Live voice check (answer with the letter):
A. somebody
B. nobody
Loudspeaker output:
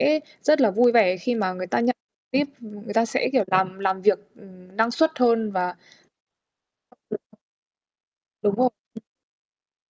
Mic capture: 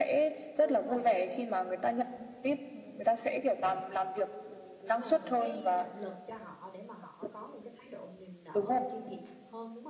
A